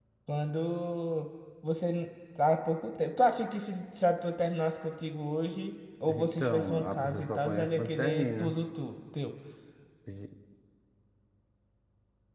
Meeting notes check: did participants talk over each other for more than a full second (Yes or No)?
Yes